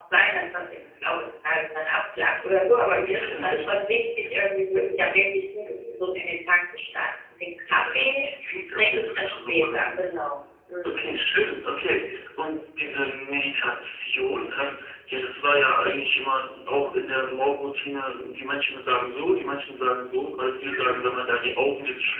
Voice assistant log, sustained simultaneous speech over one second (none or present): present